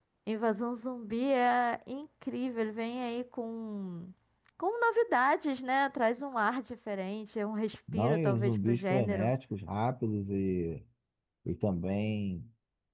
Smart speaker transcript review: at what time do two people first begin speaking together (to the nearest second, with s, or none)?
8 s